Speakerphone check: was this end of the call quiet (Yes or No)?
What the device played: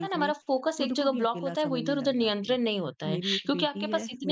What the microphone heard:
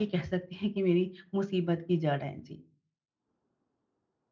No